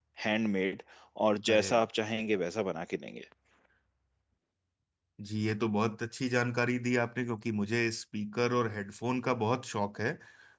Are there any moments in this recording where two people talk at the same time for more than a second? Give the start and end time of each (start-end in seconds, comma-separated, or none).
none